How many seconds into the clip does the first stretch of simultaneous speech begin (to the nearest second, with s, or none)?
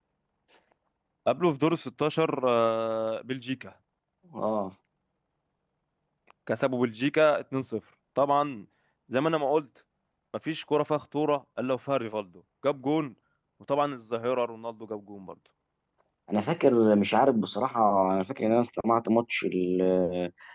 none